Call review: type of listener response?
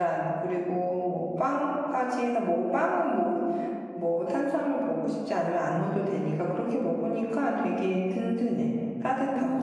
taking over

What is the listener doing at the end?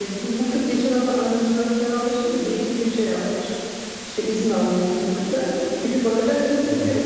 listening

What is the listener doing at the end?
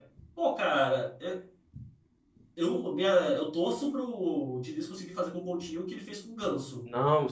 taking over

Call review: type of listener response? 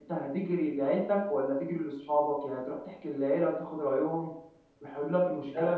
listening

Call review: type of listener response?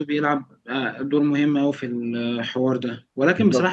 listening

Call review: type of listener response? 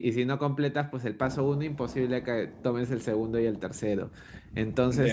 listening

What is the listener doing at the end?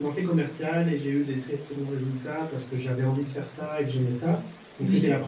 listening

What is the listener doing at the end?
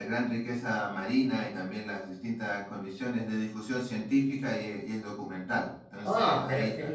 taking over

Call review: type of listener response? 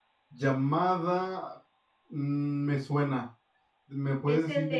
taking over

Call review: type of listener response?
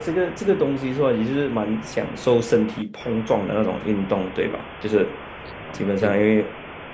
listening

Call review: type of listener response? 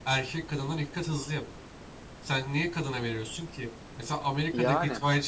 listening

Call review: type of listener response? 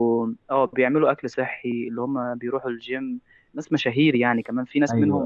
listening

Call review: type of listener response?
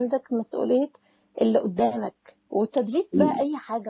listening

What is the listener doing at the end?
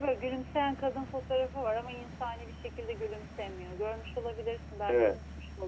taking over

